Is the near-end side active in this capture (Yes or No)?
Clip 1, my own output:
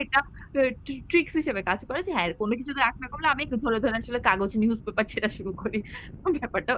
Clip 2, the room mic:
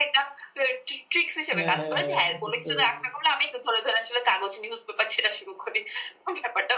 Yes